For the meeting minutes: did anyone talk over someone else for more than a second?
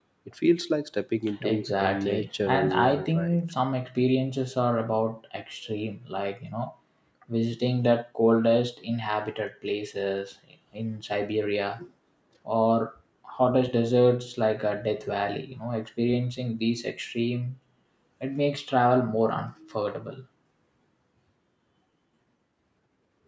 Yes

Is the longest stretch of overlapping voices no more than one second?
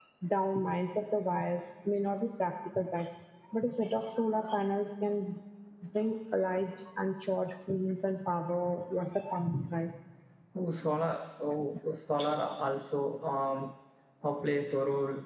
Yes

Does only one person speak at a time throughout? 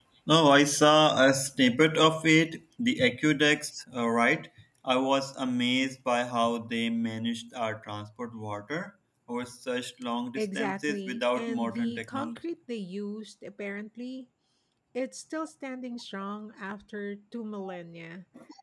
No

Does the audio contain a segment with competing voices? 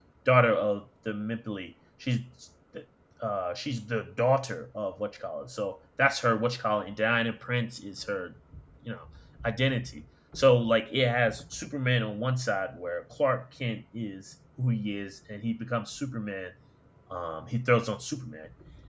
No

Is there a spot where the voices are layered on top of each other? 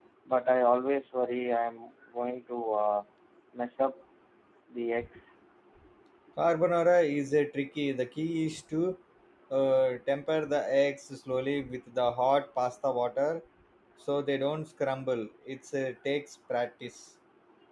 No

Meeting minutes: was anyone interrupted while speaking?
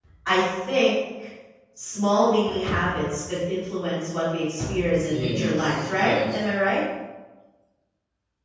Yes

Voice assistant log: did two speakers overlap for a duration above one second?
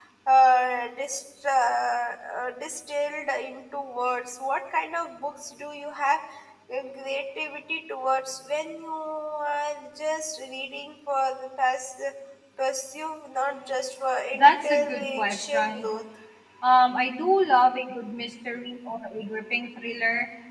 Yes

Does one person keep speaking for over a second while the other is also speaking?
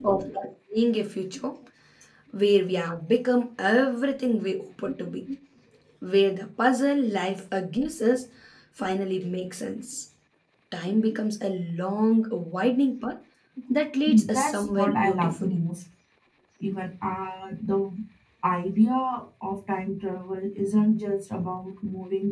Yes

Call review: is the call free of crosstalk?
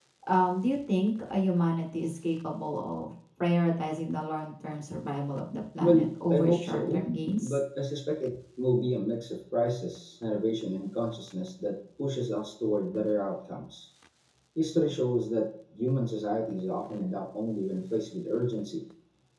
No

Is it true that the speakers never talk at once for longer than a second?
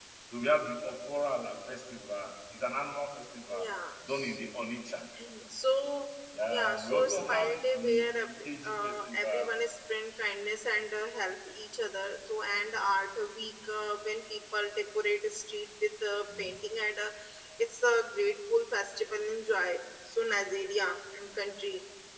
No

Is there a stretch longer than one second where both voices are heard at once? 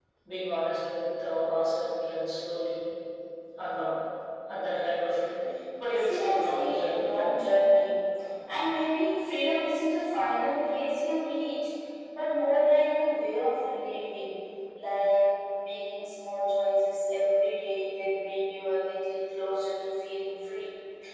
Yes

